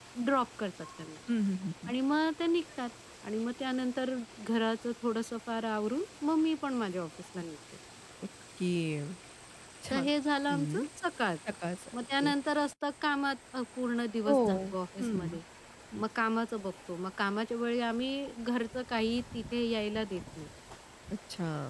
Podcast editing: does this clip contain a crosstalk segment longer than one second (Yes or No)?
No